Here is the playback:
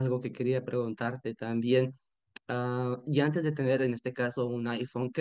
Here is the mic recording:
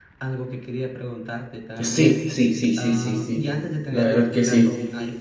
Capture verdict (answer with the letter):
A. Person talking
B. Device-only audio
A